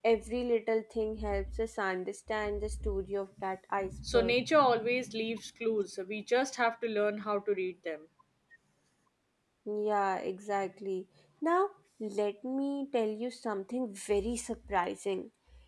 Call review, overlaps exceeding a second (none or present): none